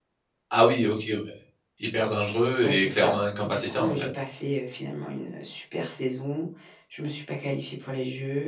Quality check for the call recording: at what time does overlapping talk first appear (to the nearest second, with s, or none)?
3 s